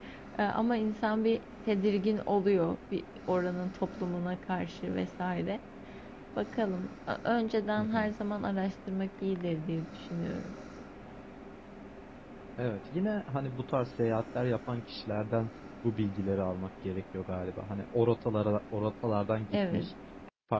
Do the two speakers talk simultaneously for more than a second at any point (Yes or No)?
No